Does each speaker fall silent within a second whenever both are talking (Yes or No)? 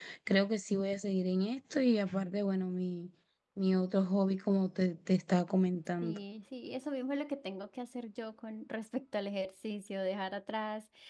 Yes